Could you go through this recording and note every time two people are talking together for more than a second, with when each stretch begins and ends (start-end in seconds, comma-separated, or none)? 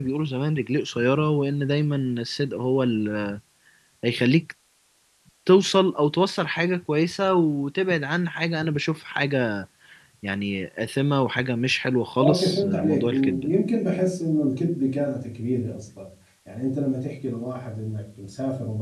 12.2-13.5